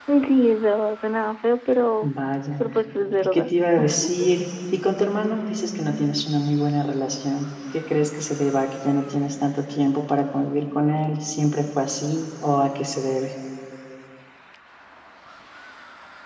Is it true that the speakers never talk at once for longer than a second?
Yes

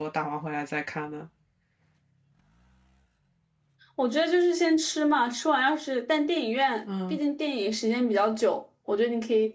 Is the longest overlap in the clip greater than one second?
No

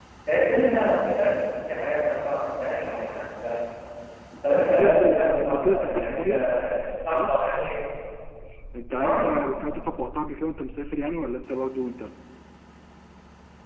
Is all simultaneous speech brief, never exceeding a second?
No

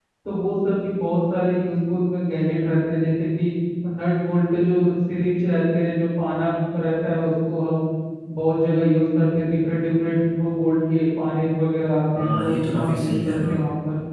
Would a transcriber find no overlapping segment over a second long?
No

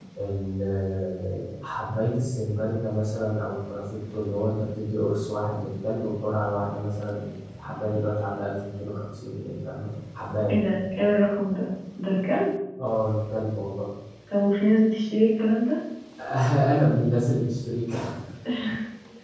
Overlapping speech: No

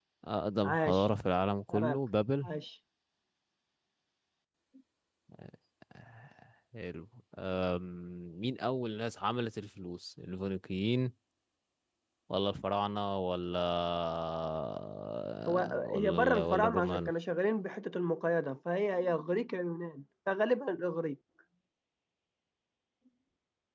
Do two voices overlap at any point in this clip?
Yes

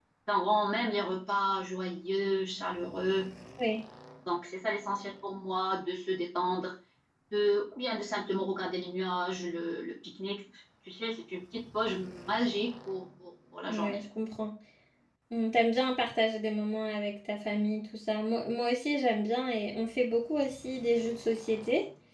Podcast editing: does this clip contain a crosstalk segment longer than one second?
No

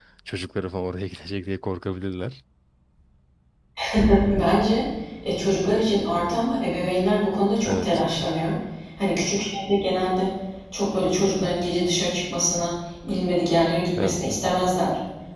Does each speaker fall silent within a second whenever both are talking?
Yes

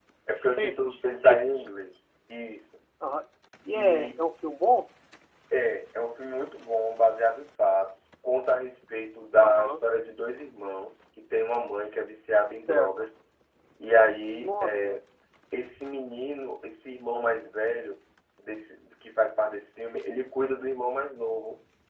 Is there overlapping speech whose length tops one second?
Yes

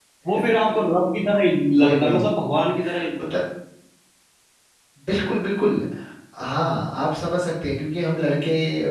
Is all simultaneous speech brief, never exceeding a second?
Yes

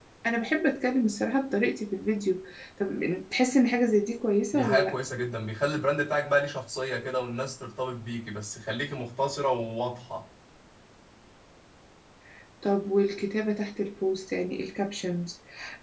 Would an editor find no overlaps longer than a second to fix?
Yes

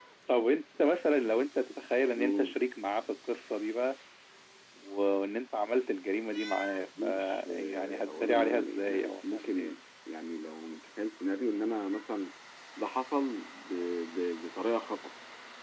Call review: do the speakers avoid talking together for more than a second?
No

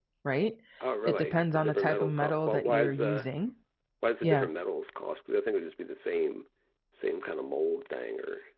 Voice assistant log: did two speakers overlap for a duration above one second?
Yes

